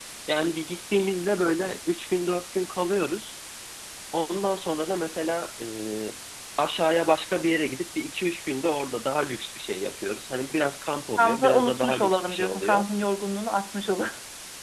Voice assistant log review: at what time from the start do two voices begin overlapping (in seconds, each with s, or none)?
11.2 s